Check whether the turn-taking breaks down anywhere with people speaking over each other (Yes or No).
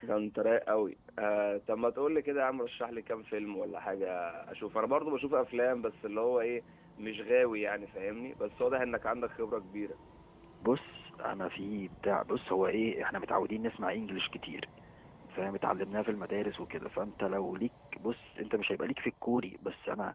No